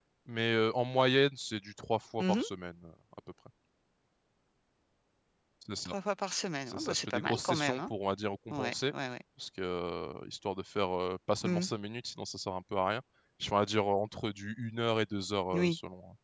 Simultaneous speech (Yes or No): Yes